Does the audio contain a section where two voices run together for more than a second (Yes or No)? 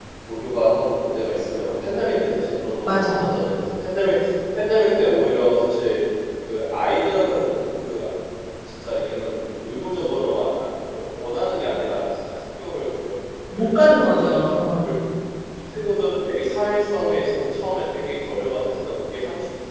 Yes